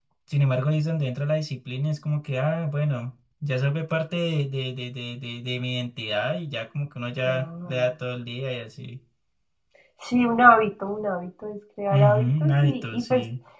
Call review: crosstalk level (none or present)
present